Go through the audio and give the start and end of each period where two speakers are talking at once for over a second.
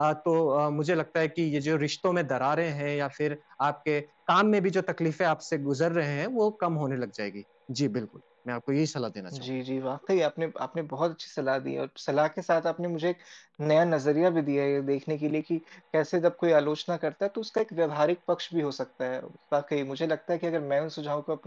none

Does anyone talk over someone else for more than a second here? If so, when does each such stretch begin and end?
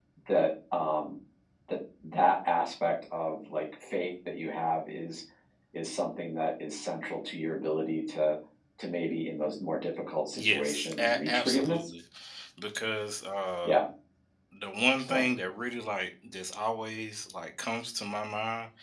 10.3-11.9

